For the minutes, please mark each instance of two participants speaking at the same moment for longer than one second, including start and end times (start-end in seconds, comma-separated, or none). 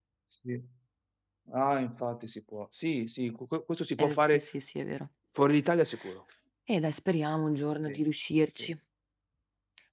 none